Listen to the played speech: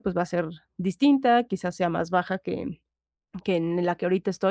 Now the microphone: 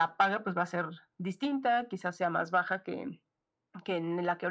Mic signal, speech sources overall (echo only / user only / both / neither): echo only